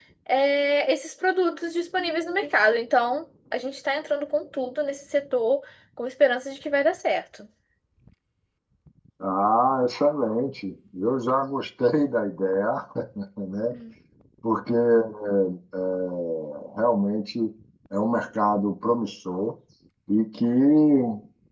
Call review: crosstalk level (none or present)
none